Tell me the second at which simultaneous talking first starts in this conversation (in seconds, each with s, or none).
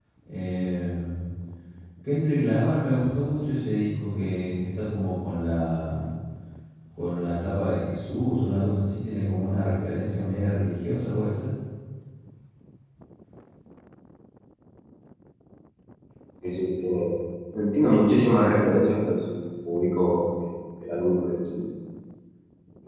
none